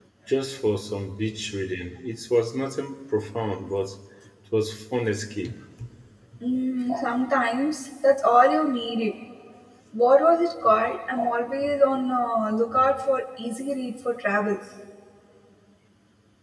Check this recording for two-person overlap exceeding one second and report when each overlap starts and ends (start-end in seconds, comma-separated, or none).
none